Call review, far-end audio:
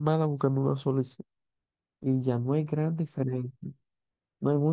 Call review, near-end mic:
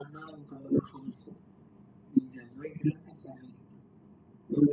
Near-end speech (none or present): none